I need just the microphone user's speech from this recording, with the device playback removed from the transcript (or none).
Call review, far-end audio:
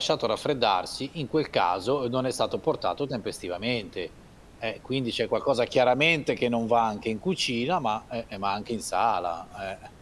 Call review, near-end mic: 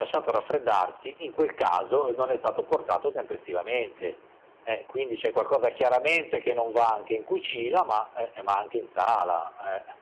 none